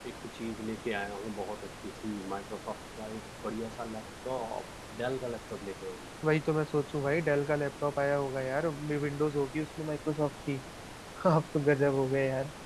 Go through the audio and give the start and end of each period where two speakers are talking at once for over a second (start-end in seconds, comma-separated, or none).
none